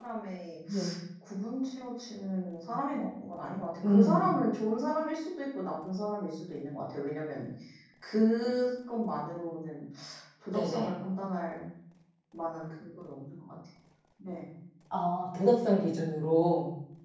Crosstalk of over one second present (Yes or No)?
No